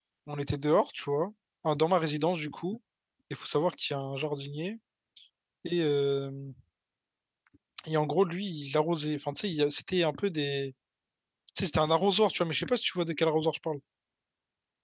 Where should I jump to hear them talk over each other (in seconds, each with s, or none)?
none